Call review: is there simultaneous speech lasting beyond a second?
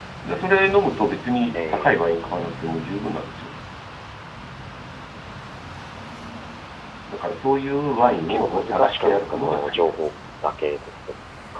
Yes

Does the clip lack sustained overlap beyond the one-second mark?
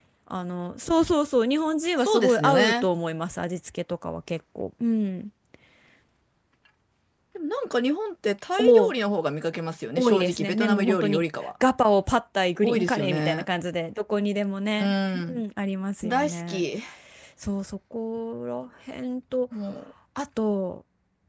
No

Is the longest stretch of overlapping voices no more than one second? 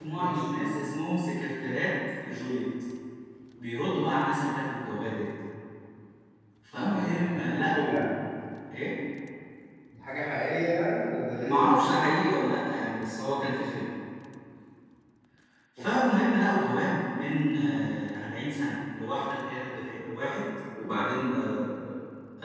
No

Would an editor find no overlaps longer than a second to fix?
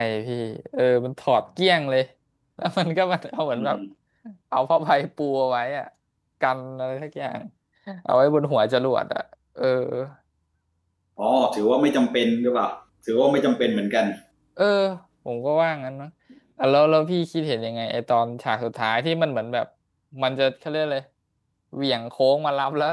Yes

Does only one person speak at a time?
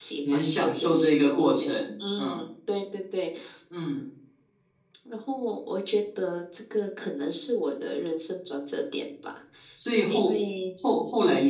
No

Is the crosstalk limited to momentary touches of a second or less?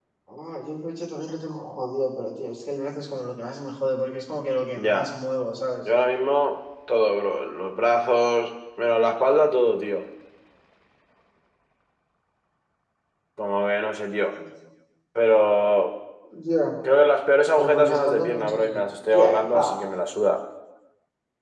No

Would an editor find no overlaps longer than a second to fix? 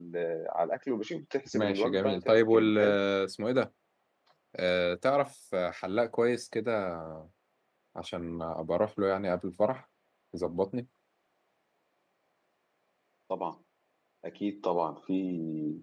No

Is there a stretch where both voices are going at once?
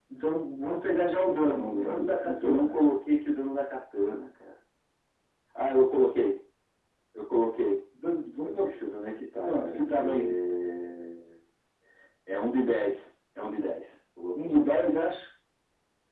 Yes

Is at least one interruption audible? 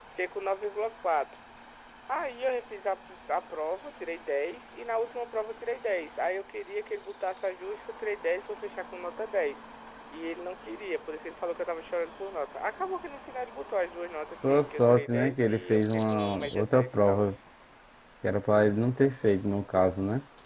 Yes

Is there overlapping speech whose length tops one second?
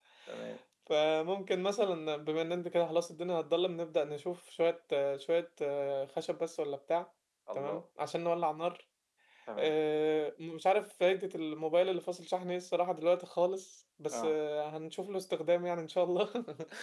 No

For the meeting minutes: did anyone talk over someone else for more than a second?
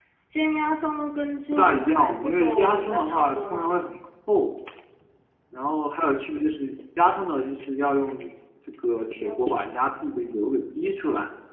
Yes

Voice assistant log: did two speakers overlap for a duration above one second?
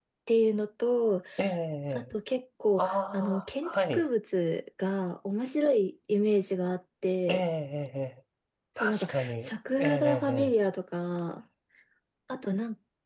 Yes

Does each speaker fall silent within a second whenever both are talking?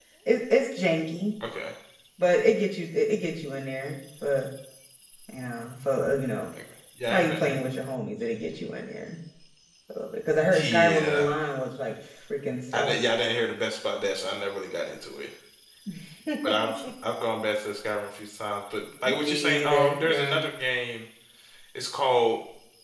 No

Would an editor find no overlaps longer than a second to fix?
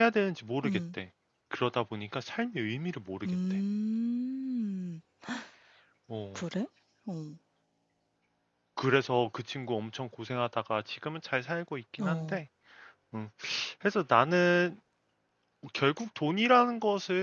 Yes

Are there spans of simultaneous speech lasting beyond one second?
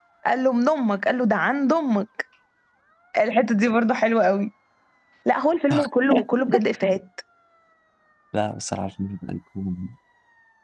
No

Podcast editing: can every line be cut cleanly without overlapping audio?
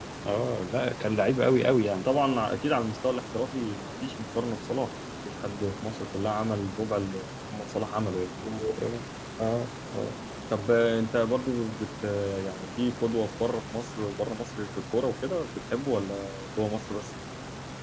Yes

